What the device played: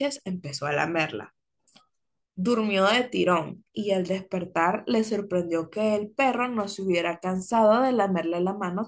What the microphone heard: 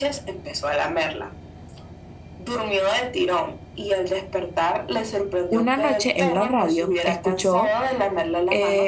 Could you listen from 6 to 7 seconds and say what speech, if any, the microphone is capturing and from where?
both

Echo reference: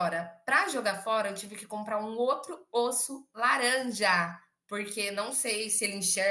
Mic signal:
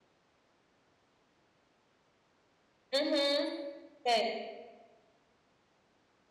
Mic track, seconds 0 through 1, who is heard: neither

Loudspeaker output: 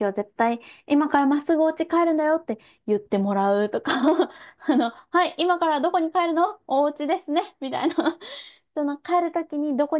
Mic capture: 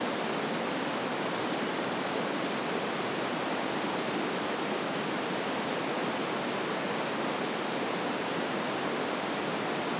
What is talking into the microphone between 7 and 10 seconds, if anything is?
neither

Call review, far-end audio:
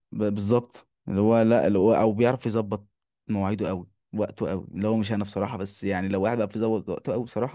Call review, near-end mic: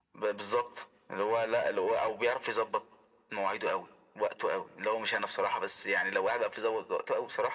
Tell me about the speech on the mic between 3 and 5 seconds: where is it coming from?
echo only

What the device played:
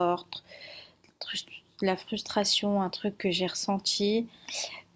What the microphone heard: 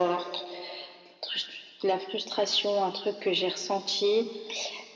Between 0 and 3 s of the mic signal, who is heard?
echo only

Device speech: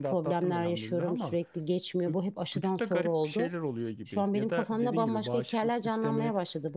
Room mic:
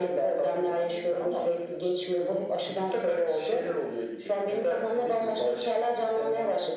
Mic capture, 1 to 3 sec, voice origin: echo only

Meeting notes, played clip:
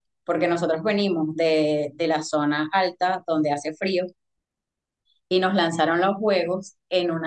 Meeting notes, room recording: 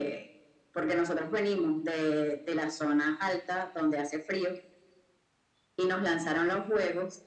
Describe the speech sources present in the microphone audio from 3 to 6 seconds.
echo only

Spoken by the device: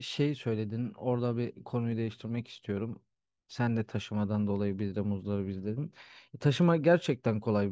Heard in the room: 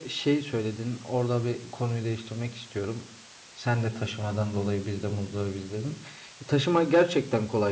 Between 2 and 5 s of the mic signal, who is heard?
echo only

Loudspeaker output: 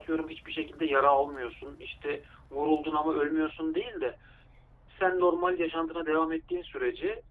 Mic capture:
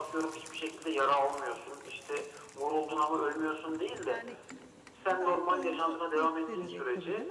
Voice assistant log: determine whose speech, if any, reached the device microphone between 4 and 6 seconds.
both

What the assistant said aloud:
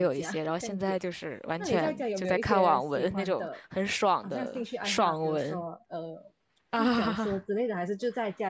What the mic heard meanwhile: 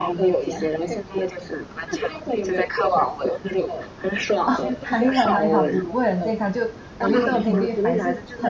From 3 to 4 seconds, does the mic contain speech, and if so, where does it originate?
echo only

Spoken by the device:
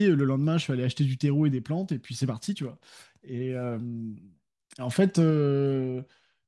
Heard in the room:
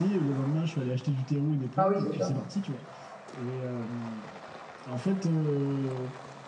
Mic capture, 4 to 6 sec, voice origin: echo only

